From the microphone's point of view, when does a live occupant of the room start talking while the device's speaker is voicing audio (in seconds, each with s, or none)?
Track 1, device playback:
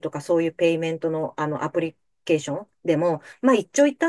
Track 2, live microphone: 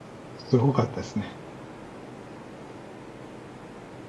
0.4 s